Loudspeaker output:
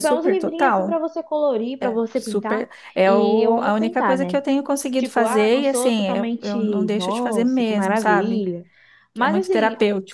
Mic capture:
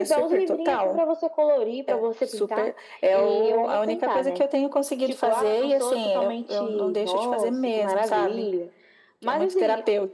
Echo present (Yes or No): Yes